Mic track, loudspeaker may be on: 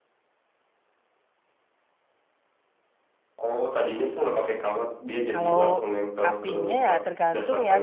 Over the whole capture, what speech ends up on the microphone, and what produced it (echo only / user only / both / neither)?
both